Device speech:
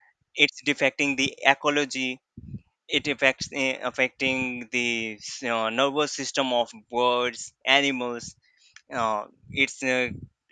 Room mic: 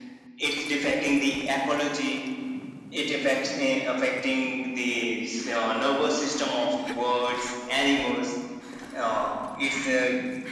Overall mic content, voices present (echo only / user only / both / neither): echo only